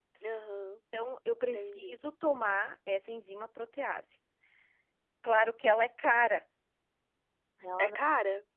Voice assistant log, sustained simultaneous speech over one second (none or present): none